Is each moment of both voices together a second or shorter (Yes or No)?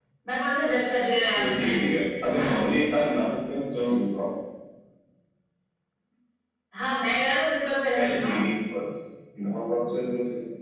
Yes